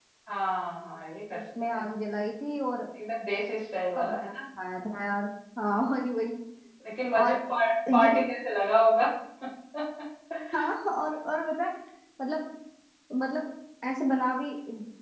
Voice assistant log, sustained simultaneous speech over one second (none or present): none